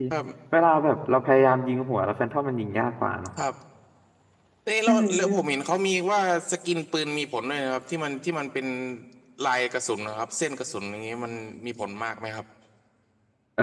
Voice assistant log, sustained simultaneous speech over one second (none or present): none